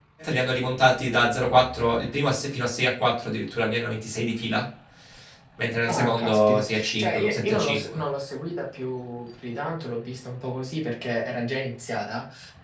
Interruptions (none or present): present